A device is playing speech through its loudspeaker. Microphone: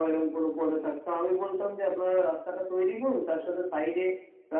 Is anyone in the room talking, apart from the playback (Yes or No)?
No